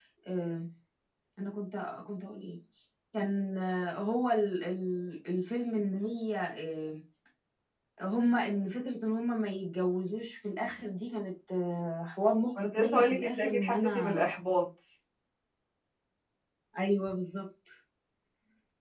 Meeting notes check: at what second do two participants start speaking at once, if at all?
12.6 s

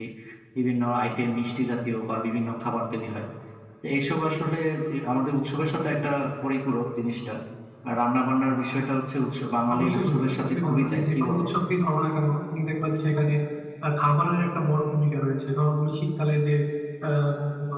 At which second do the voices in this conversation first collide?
9.7 s

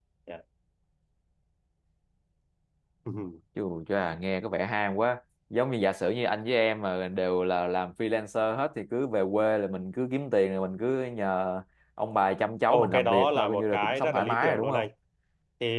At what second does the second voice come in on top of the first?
12.7 s

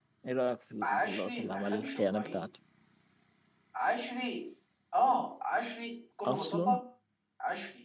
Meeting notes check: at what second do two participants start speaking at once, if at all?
0.8 s

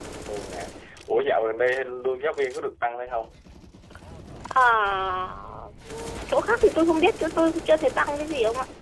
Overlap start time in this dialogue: none

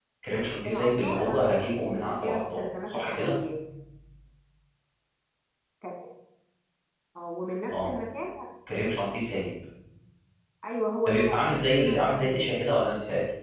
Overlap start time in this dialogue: 0.7 s

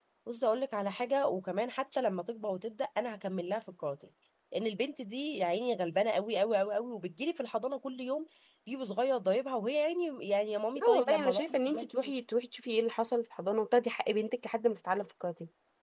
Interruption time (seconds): 10.8 s

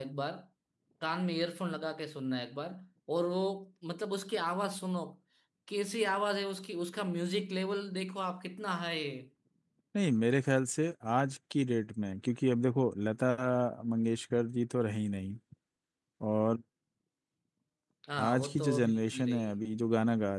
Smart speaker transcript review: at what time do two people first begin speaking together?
18.2 s

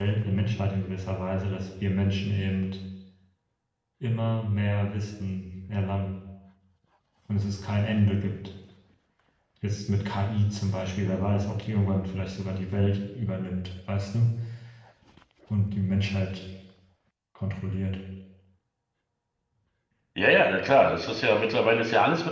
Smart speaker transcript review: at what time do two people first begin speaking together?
none

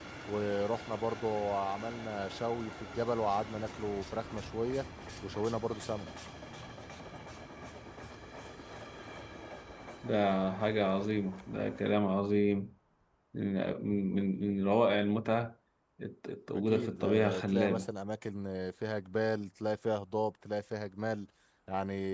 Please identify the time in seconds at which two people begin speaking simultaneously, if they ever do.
16.7 s

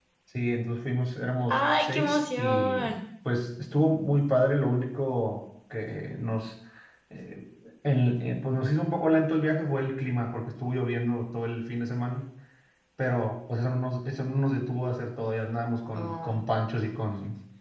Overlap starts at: 1.5 s

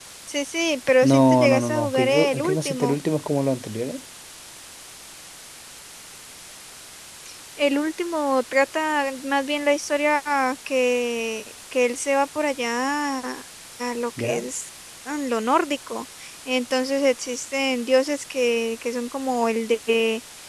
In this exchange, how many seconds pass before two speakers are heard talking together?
1.0 s

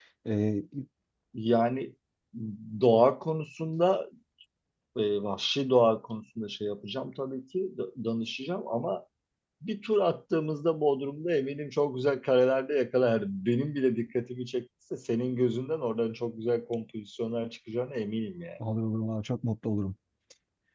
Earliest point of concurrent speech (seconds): none

